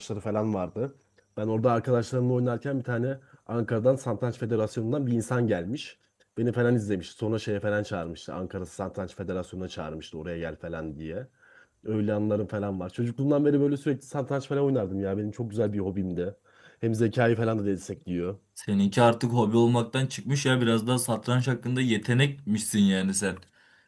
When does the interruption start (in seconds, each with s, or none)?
none